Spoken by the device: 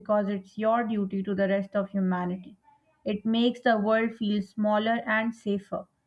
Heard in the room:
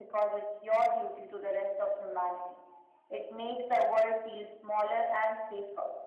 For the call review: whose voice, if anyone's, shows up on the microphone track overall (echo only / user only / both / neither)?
echo only